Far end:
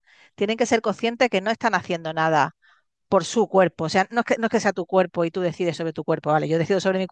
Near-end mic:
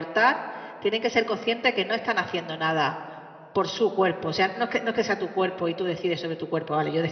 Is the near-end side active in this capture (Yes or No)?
No